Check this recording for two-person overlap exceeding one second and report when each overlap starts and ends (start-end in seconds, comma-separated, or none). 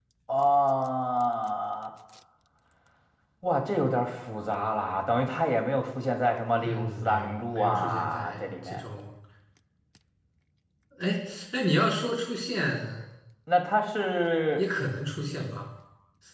6.6-8.8